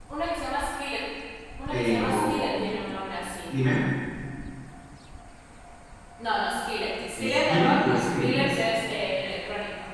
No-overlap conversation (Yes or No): No